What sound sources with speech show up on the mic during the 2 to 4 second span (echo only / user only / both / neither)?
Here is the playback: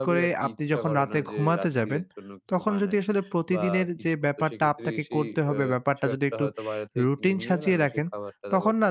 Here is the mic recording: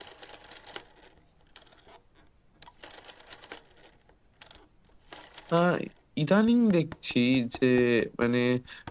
neither